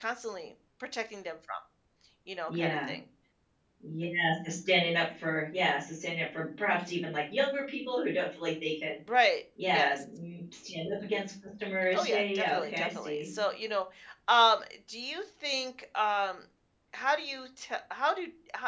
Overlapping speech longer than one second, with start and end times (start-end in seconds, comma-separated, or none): 11.9-13.3